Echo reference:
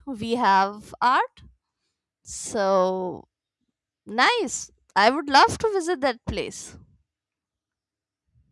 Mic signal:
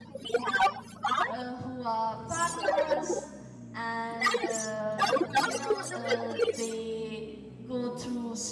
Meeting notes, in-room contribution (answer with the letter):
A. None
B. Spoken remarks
B